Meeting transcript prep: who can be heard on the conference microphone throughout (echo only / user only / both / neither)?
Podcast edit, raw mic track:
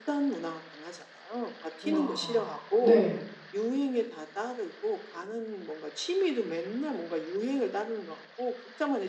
both